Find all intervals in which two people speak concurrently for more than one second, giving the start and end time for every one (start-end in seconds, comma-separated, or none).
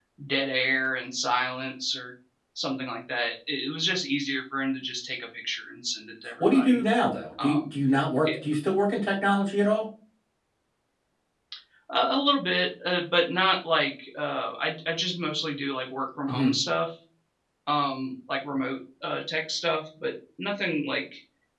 none